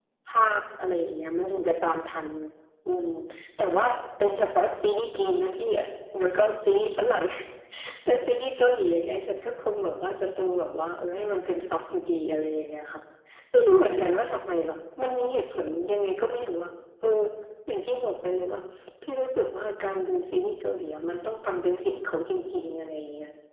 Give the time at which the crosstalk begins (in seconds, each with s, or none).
none